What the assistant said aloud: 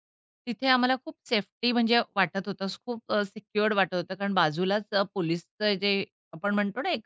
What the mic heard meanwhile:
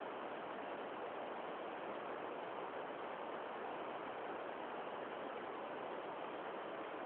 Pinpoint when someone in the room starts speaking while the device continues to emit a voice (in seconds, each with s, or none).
none